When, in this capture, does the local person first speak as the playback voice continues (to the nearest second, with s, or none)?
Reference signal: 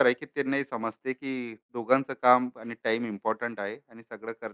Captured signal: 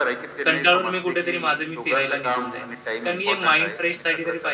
0 s